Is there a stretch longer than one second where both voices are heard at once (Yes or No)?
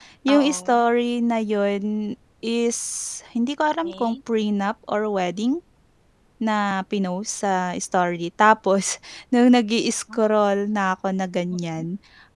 No